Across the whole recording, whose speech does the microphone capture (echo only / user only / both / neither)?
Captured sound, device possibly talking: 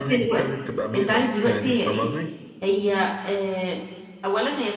both